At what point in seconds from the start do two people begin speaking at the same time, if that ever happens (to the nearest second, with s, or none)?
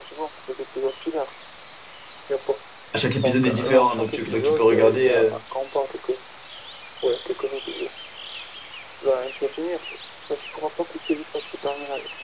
3 s